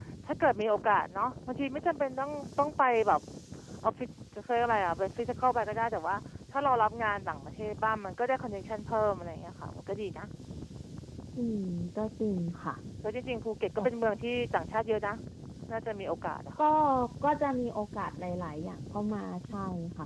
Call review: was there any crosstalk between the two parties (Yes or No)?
No